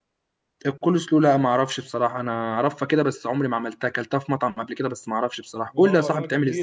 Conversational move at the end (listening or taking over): taking over